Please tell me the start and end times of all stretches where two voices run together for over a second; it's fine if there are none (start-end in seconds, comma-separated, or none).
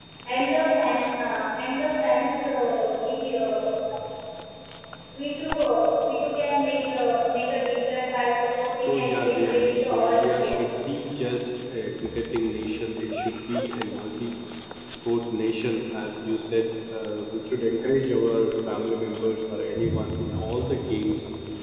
8.8-10.5